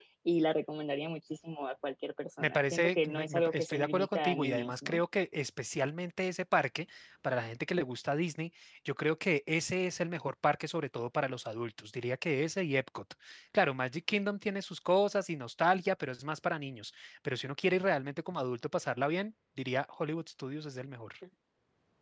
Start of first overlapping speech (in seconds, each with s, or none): 2.4 s